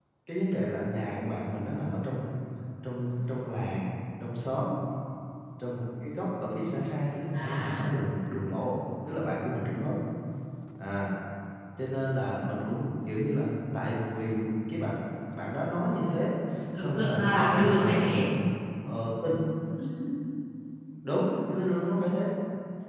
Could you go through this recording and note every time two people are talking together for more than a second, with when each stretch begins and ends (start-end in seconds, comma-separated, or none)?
16.8-18.2